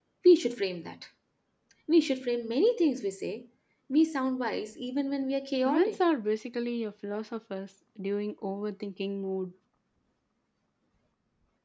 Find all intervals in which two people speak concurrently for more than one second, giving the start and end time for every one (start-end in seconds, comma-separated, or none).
none